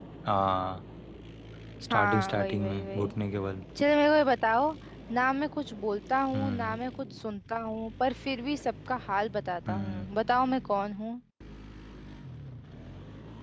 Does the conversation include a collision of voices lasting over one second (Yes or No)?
Yes